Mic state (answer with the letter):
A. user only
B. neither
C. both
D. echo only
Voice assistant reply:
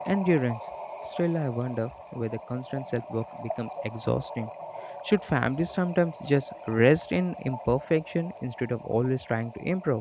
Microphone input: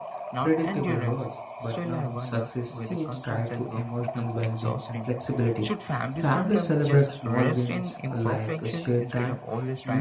C